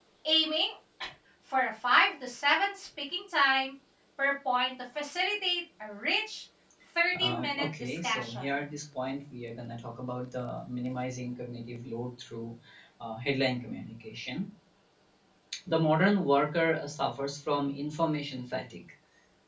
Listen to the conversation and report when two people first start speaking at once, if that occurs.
7 s

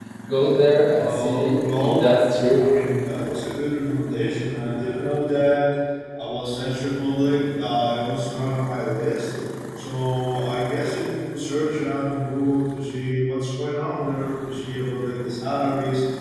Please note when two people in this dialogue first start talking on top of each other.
1 s

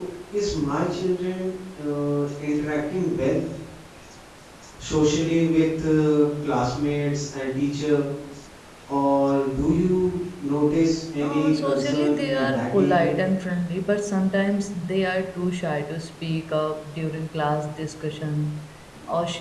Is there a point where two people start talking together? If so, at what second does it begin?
11 s

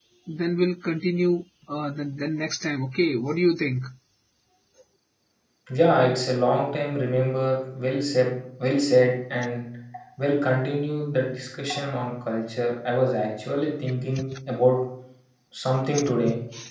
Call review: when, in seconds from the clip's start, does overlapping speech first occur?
none

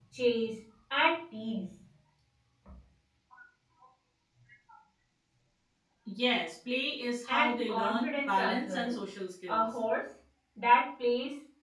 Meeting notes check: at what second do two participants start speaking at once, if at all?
7 s

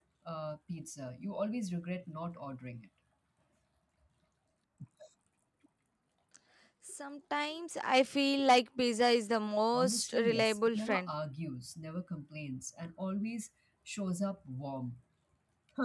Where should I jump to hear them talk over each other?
10 s

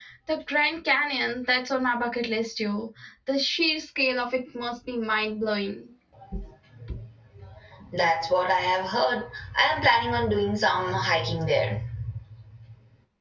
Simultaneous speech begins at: none

